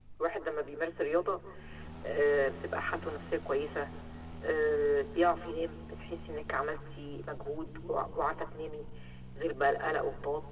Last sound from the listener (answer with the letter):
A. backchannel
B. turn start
A